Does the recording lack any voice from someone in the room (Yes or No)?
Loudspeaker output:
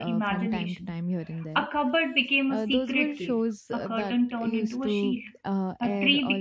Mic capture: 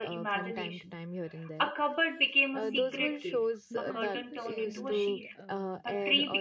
No